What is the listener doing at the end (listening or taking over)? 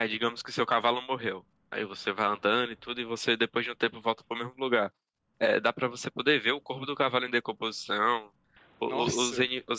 listening